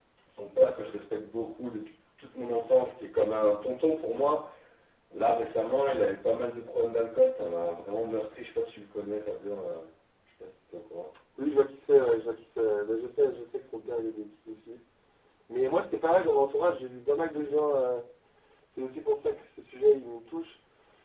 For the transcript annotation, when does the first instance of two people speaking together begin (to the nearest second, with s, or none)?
none